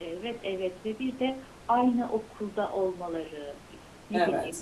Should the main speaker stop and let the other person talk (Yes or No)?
No